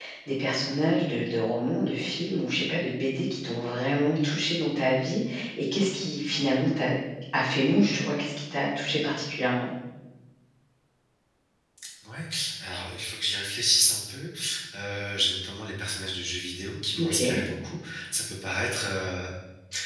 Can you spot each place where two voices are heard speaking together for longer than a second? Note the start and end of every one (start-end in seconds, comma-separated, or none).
none